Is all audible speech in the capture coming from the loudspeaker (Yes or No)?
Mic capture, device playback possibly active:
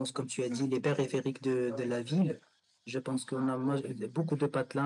Yes